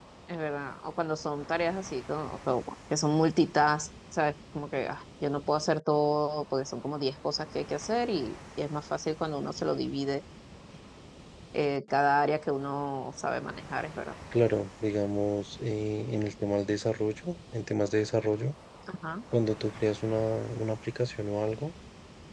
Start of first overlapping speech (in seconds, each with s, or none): none